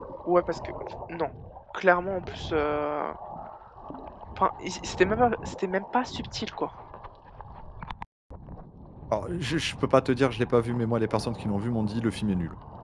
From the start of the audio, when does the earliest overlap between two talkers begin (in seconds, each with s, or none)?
none